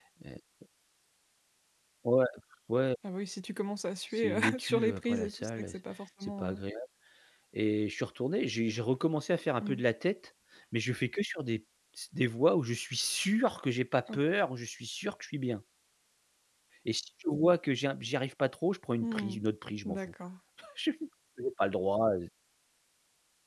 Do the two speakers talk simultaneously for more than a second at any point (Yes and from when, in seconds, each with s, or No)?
Yes, from 4.1 s